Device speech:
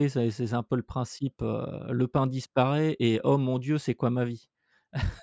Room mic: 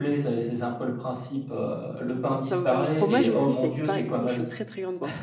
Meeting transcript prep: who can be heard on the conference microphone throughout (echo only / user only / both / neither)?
both